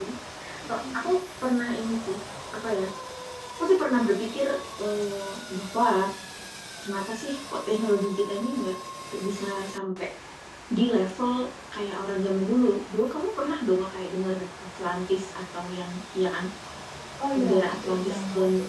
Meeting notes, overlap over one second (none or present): present